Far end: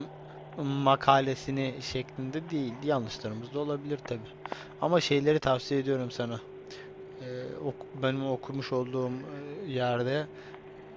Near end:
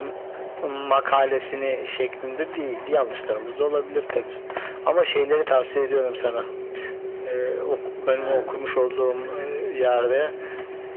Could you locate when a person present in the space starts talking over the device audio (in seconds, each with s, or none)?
8.2 s